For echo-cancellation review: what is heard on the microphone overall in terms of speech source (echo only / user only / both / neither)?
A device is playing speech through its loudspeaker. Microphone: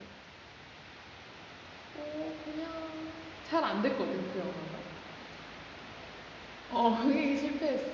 user only